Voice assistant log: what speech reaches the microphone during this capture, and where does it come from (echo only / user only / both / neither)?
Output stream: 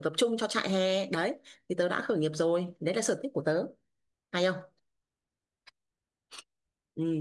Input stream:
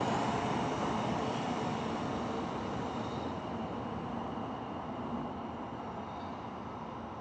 neither